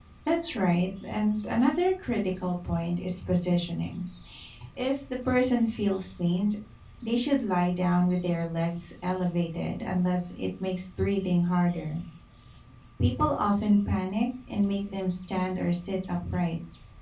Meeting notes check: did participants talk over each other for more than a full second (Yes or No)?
No